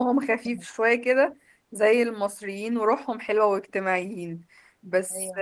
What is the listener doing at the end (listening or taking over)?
listening